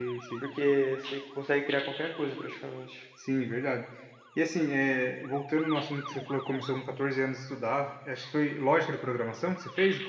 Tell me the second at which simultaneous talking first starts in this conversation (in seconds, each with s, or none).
none